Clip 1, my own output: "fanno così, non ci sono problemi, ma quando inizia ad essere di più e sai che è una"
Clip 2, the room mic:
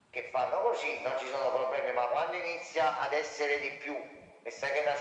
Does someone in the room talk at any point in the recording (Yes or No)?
No